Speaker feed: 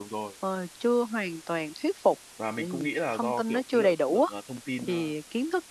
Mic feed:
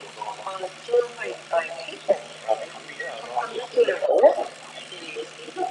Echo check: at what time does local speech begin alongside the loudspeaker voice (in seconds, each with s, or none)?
none